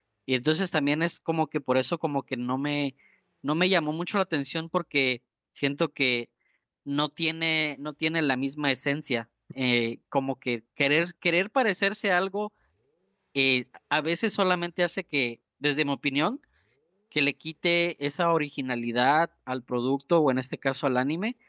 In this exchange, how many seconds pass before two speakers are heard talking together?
none

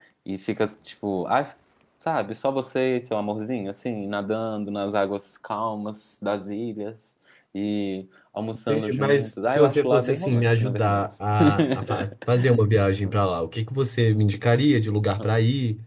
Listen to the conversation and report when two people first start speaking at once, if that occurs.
9 s

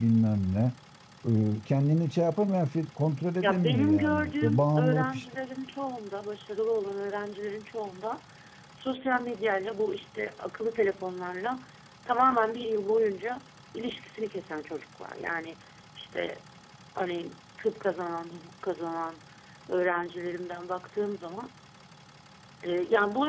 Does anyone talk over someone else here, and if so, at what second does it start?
3 s

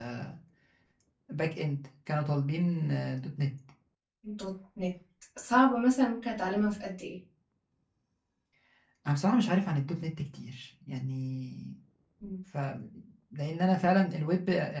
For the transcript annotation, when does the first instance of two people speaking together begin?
none

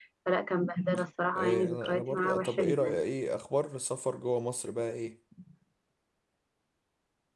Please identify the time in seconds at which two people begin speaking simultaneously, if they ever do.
1 s

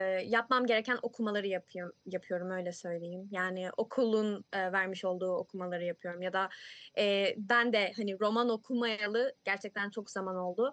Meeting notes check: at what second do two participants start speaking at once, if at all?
none

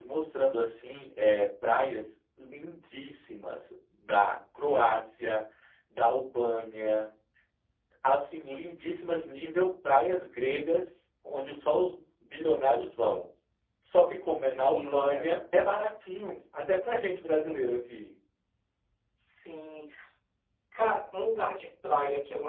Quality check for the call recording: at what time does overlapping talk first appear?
14 s

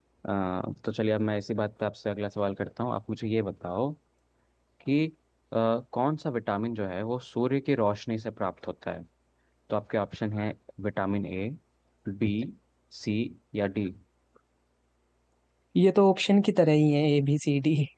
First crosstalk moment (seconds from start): none

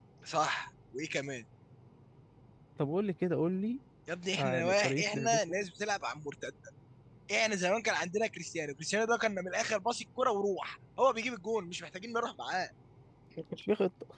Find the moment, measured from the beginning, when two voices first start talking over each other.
4 s

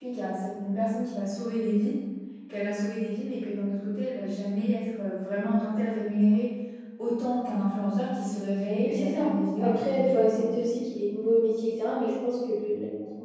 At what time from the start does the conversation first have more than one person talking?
9 s

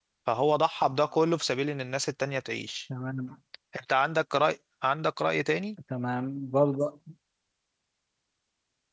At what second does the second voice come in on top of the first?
none

